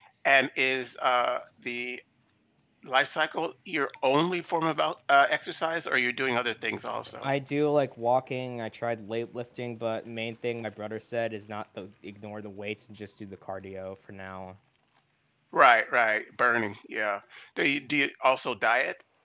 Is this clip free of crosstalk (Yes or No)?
Yes